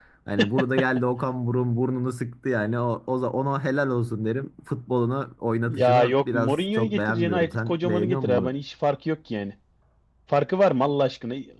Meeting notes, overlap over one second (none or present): present